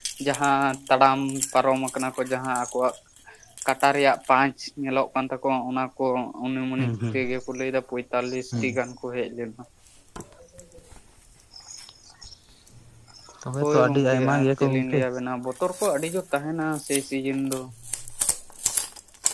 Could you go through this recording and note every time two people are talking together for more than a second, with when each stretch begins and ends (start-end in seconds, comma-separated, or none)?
13.6-15.0